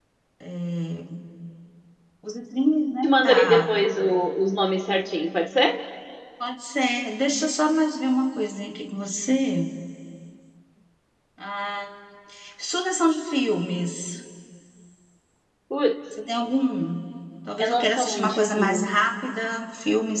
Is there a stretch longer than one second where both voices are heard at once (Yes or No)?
Yes